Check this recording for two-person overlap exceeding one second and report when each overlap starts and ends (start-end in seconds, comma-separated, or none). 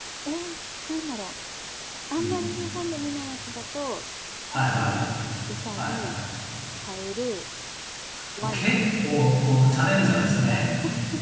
none